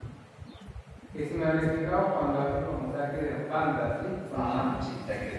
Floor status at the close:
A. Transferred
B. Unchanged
A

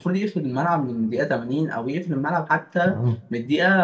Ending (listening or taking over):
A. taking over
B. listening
B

